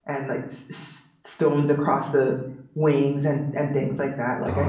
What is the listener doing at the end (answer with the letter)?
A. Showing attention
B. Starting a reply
B